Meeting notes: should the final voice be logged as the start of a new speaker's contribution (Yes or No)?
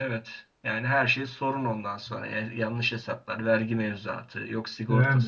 Yes